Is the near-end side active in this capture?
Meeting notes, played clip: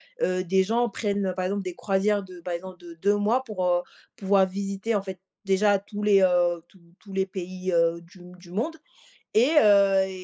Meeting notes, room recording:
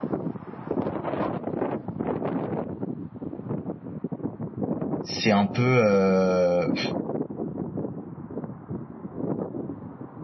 Yes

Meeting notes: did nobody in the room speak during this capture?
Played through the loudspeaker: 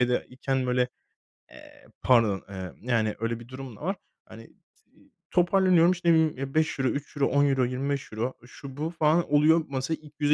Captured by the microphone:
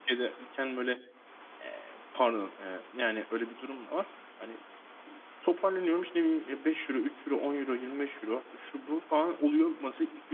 Yes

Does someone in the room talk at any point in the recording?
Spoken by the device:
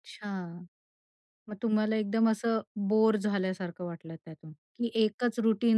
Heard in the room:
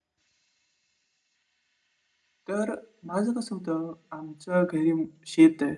Yes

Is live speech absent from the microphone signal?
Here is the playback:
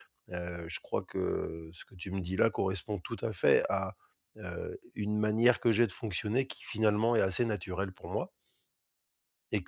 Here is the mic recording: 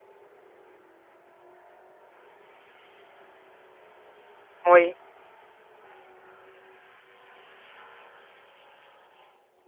No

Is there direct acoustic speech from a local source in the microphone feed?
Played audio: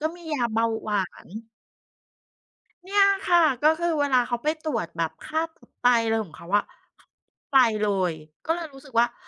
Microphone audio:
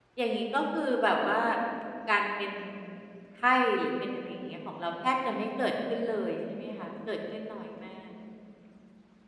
Yes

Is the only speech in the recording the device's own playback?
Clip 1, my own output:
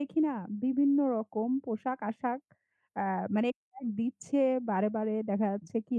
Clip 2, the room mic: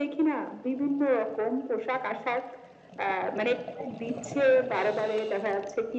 Yes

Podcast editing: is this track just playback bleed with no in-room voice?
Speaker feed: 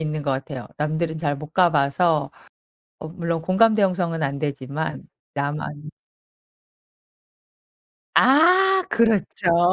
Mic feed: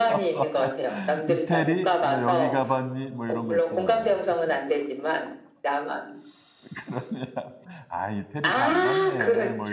No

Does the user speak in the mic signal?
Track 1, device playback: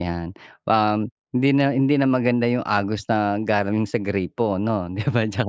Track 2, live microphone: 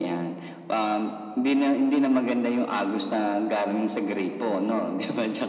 No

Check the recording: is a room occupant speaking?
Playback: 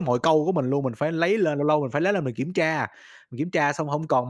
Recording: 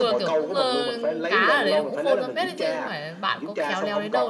Yes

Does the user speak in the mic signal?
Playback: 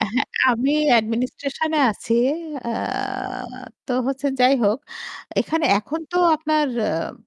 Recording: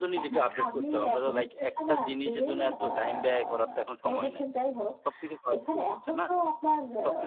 Yes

